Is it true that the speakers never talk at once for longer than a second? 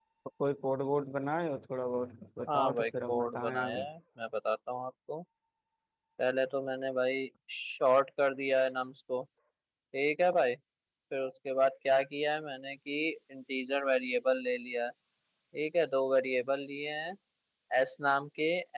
No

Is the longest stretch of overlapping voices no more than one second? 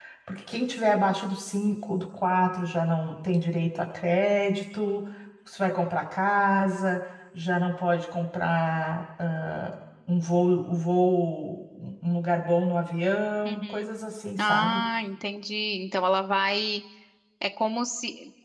Yes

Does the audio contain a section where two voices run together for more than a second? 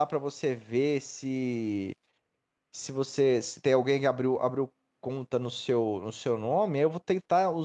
No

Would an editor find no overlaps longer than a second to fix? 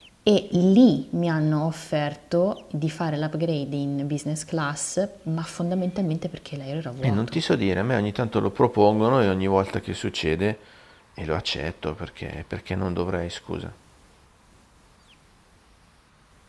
Yes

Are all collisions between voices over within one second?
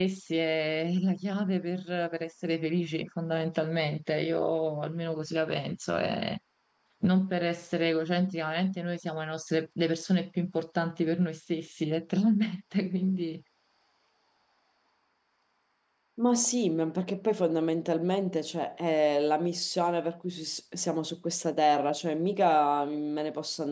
Yes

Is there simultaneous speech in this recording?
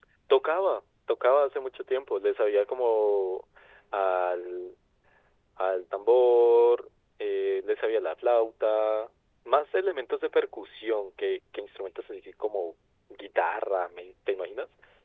No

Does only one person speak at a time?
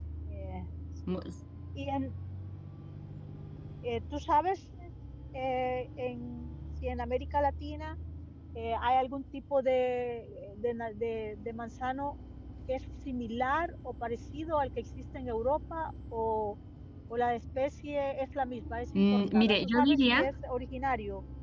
No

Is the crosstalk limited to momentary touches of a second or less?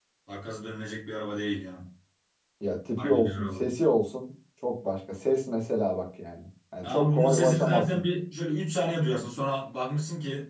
No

